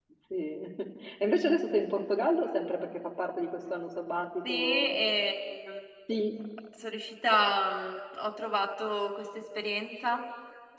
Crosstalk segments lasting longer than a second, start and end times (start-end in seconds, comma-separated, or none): none